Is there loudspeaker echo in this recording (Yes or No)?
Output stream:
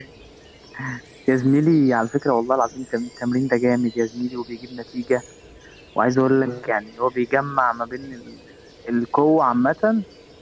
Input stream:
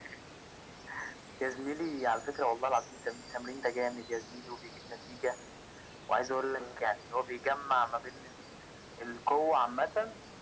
Yes